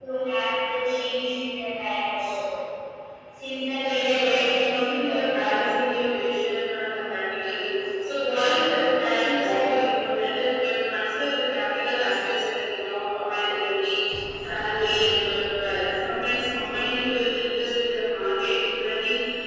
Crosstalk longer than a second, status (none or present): present